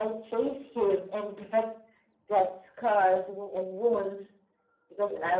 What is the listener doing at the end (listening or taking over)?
listening